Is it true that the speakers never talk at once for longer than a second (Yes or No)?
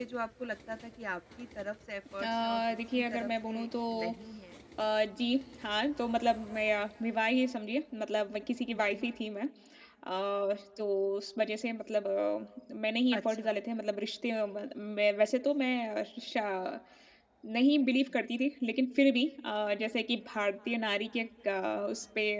No